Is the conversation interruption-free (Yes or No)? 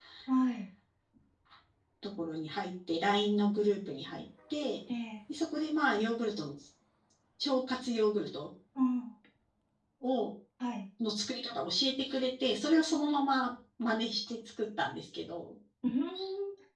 Yes